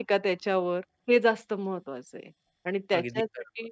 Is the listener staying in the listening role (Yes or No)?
Yes